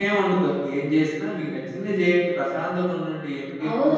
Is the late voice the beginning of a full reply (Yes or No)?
Yes